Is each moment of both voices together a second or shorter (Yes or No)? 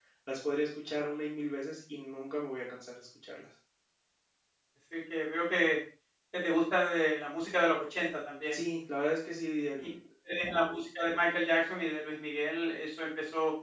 Yes